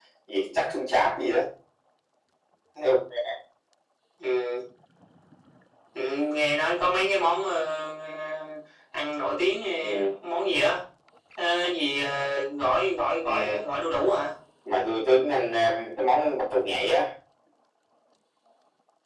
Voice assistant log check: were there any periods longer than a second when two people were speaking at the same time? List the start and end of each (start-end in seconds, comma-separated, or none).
none